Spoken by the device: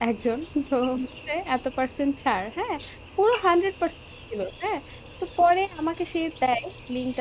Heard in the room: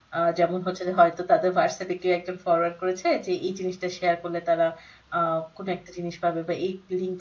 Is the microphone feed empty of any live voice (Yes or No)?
No